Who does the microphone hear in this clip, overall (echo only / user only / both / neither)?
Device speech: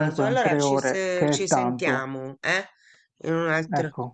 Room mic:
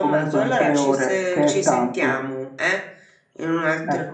echo only